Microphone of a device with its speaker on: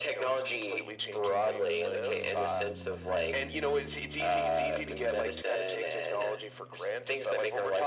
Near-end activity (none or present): none